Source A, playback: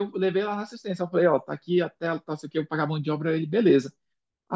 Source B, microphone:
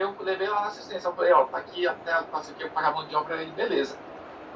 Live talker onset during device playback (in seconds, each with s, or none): none